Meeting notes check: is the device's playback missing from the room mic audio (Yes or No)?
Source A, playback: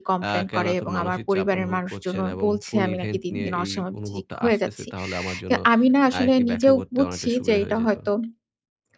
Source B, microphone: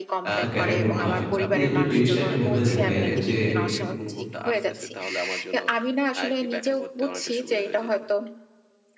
No